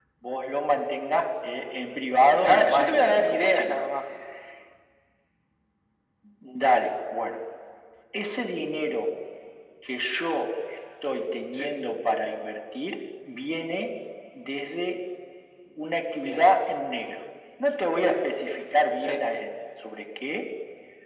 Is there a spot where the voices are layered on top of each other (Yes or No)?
Yes